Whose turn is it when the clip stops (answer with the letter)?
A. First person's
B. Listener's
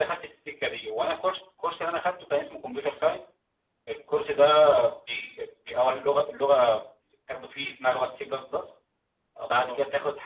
A